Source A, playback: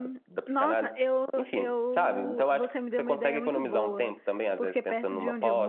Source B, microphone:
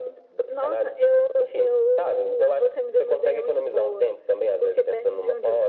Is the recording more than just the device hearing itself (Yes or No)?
No